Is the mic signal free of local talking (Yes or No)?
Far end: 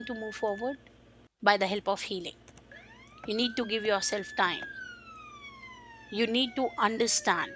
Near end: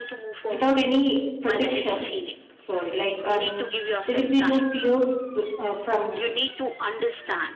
No